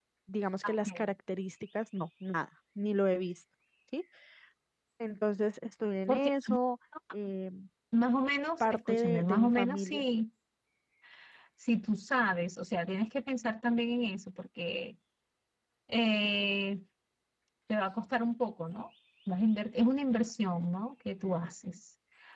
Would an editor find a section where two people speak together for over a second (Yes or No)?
Yes